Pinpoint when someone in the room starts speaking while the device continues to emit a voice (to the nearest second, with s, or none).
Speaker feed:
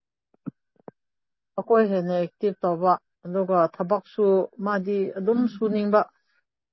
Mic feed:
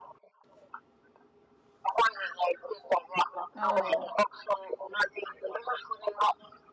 4 s